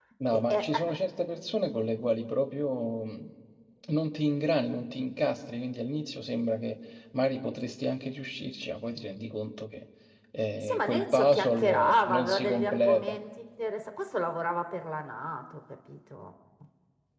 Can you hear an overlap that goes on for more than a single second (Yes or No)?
Yes